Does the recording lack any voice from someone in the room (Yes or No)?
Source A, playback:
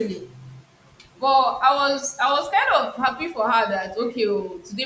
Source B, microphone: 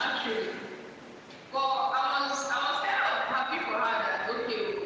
Yes